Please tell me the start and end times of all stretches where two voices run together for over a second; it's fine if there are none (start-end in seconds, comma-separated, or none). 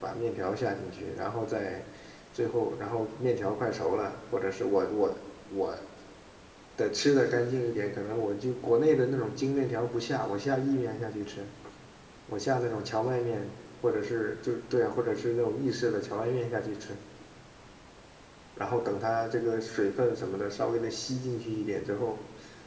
none